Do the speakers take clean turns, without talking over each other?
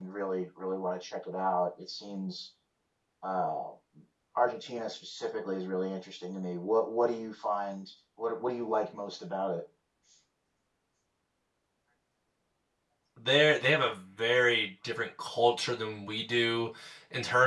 Yes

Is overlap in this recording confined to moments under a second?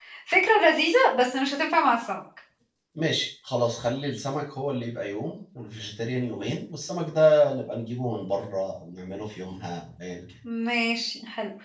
Yes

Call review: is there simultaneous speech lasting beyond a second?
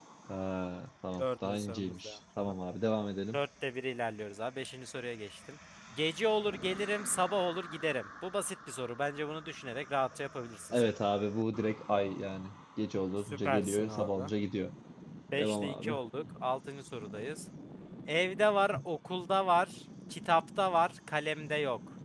Yes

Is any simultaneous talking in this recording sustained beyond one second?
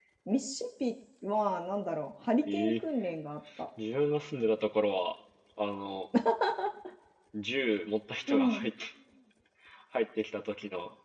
No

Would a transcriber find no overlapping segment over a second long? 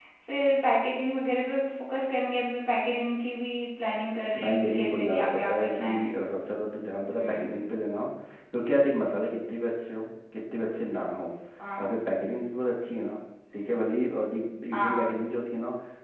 No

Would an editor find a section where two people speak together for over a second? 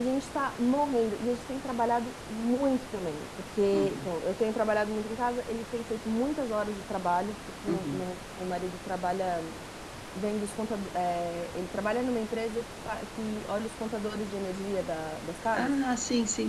No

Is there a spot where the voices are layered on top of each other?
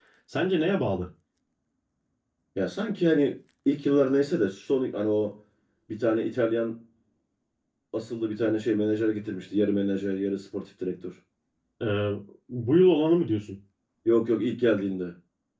No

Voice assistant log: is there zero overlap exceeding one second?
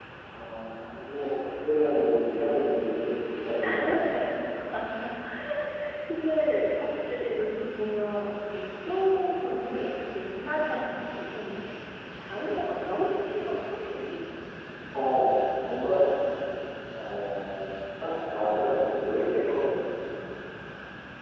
Yes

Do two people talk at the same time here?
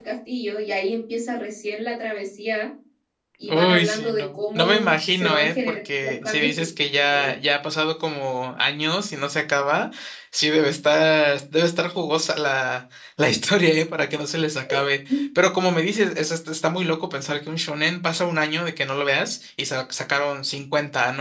Yes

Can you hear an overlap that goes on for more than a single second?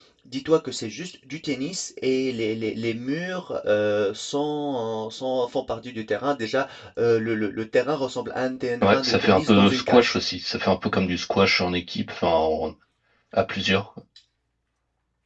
Yes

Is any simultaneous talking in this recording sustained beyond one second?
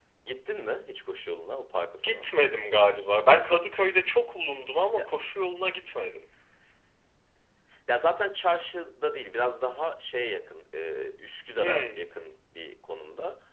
No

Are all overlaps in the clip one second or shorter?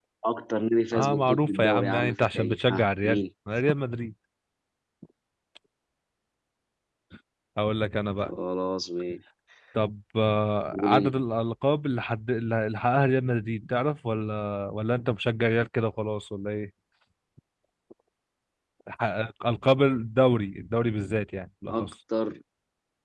No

